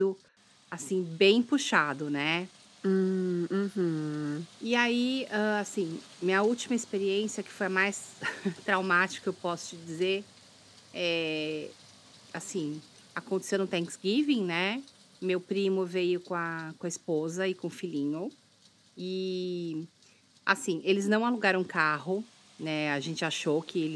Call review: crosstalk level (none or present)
none